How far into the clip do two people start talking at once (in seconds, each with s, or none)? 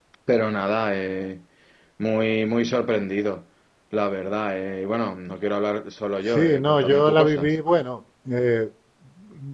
6.3 s